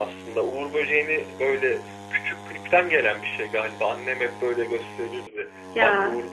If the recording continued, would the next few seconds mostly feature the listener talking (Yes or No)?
No